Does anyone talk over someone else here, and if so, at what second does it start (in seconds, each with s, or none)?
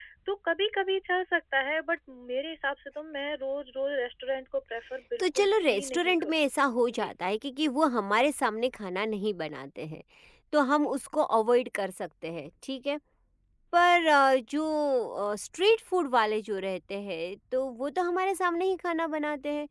5.2 s